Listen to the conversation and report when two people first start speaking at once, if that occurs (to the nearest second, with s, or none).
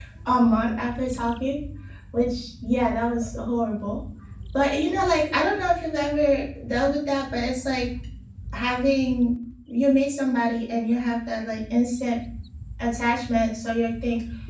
none